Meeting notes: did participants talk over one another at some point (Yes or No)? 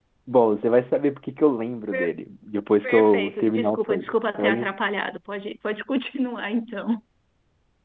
Yes